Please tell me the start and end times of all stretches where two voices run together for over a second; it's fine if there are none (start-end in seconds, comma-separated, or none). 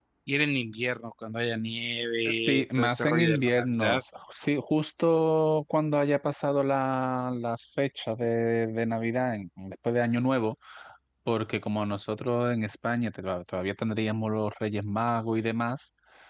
2.3-4.0